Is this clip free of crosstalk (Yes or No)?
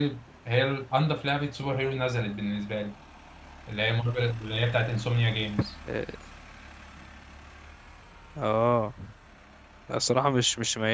Yes